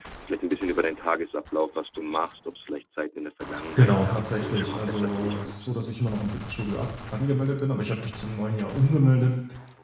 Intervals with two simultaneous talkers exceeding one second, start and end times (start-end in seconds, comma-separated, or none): 3.8-5.9